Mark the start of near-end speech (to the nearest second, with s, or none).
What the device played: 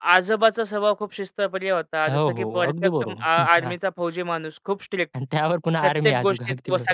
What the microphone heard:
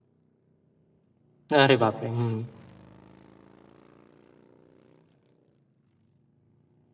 2 s